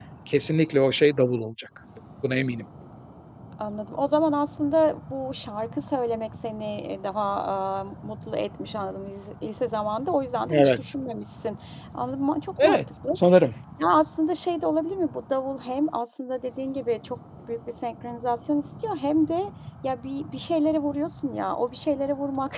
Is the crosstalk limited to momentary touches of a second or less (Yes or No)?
Yes